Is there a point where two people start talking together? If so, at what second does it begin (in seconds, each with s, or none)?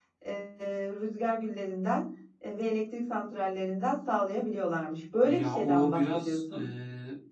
5.2 s